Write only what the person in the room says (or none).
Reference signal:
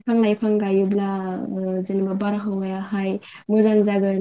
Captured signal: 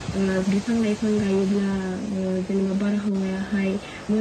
none